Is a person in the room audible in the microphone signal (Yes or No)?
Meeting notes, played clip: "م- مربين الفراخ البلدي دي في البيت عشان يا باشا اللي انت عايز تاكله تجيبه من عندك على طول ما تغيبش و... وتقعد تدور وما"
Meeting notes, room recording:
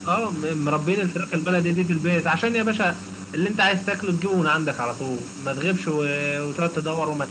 No